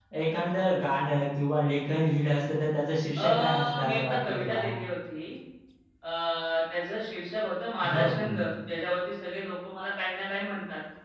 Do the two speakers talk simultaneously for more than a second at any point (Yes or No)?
Yes